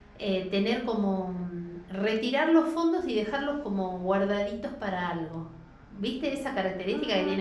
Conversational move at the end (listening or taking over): taking over